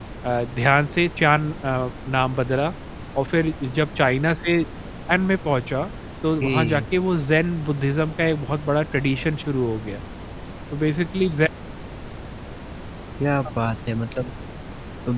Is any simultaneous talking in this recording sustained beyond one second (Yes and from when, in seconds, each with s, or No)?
No